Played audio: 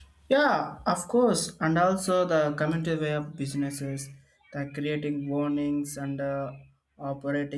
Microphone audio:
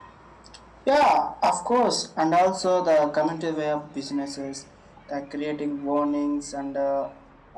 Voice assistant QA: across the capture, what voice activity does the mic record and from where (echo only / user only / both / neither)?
echo only